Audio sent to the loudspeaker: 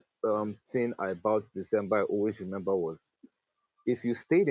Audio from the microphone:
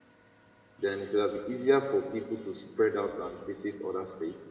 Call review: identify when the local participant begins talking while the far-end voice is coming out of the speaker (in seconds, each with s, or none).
0.8 s